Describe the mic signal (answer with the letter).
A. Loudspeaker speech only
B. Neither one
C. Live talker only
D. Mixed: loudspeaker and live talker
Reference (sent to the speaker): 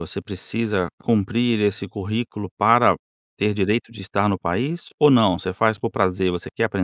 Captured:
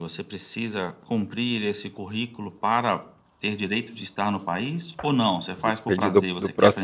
D